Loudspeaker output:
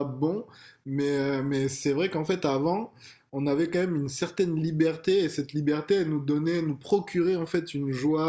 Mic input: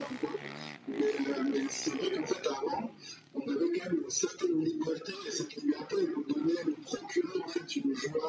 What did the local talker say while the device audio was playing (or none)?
none